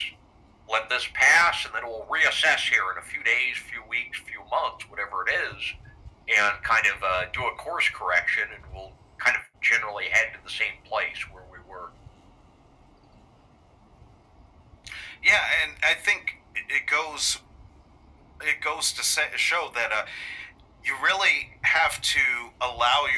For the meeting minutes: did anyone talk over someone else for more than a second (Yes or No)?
No